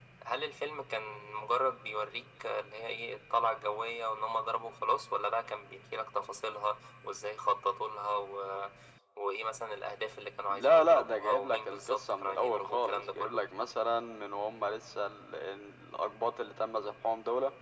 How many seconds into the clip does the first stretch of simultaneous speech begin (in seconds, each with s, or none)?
10.5 s